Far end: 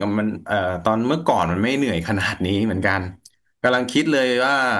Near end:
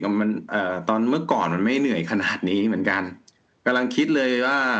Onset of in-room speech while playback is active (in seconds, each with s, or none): none